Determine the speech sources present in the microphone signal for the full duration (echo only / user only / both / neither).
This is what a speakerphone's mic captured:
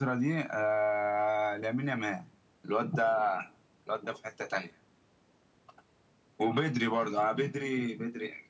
echo only